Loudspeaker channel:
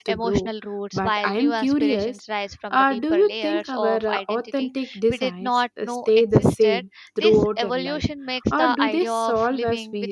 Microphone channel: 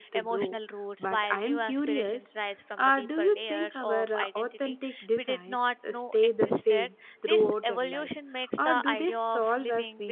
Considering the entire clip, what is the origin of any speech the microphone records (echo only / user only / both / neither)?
echo only